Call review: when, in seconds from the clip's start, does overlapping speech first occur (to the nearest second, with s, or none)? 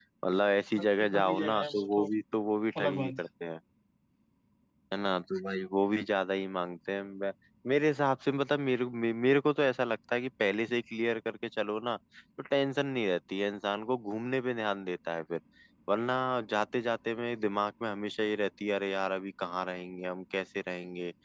1 s